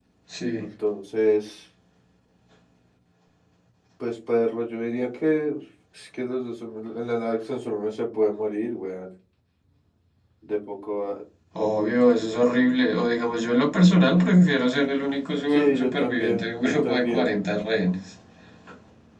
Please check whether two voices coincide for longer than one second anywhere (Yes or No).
Yes